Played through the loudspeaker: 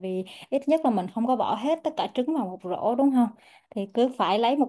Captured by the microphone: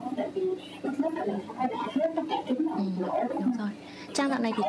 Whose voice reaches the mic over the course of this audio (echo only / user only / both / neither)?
both